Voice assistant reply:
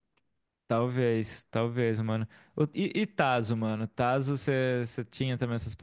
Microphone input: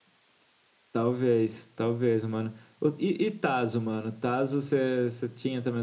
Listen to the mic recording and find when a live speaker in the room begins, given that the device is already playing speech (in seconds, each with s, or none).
none